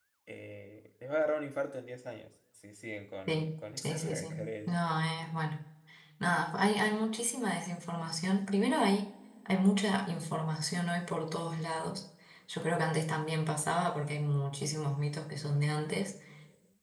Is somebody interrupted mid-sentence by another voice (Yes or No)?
Yes